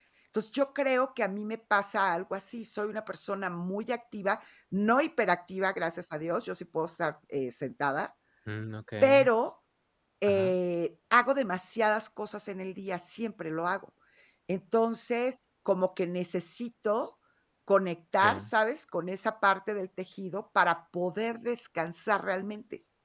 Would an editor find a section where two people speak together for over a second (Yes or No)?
No